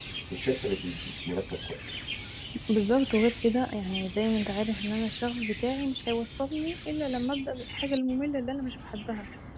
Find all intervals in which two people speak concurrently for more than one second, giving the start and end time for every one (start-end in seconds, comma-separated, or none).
none